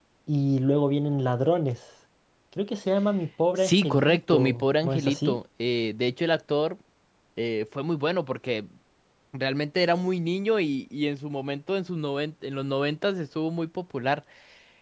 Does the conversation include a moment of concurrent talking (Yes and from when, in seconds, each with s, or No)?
Yes, from 3.6 s